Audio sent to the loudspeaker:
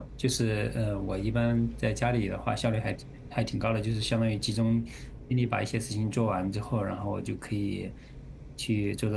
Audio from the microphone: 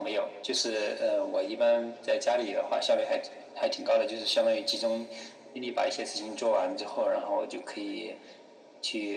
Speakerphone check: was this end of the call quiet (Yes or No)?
Yes